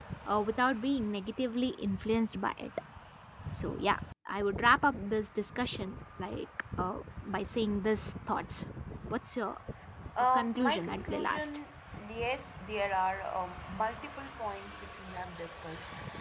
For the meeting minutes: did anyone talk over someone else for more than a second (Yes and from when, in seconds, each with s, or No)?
Yes, from 10.3 s